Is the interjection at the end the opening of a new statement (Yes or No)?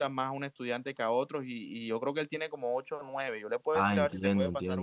Yes